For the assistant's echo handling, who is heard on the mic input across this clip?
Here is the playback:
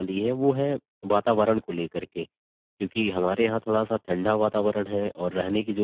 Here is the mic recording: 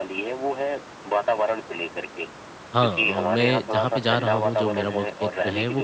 both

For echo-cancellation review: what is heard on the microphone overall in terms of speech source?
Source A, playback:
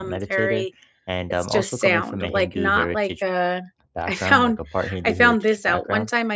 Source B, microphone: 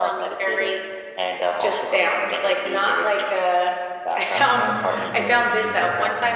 both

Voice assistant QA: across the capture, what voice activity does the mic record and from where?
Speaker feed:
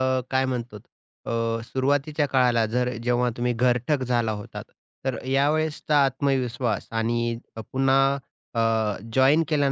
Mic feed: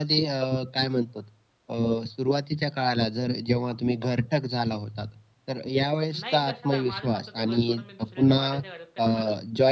both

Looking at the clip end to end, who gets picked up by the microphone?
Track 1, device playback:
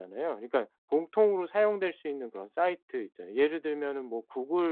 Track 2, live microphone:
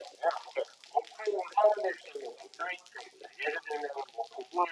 echo only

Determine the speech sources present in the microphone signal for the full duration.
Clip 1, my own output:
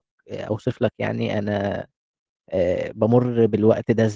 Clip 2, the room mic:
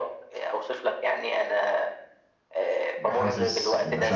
both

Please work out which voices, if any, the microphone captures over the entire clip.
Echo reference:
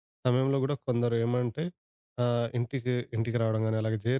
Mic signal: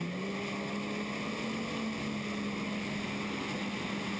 neither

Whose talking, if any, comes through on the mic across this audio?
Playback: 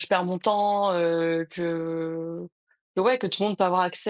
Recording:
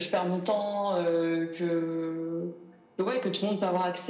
echo only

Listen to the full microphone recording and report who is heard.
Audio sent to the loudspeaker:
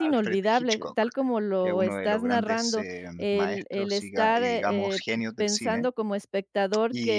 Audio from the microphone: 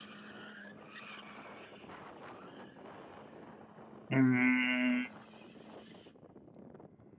user only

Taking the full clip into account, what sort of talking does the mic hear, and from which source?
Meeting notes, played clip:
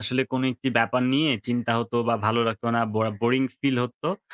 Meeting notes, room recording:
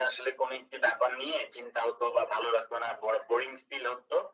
echo only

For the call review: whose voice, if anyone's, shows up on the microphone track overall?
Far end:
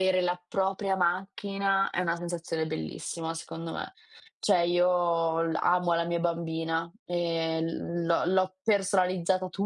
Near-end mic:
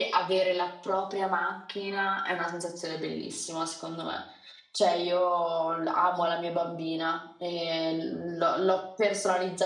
echo only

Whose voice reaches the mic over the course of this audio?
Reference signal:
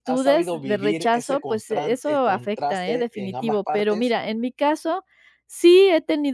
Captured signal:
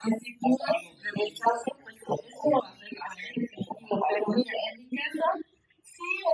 echo only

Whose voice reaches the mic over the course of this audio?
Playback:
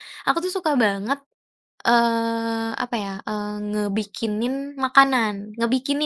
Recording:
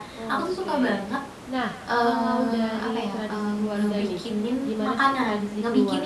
both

